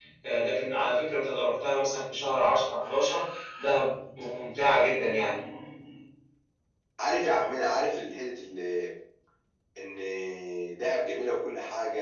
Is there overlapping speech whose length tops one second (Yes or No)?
No